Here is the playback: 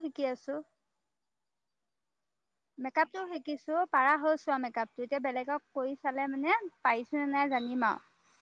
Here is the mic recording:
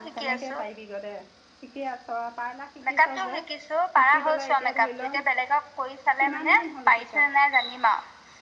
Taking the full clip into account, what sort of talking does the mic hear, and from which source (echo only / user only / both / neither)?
both